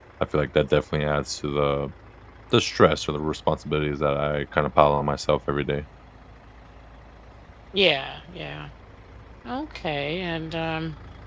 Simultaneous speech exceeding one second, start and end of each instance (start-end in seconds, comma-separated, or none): none